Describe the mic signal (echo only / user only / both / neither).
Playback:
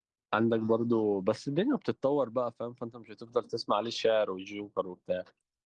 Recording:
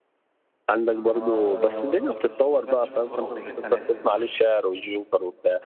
both